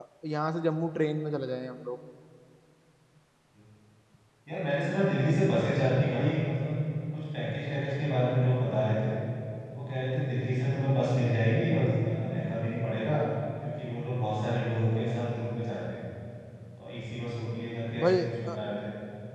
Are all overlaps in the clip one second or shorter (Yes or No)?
Yes